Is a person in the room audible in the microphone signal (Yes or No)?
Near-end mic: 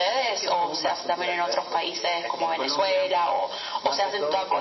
No